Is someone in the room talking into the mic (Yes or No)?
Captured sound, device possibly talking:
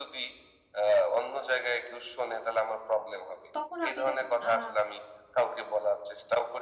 Yes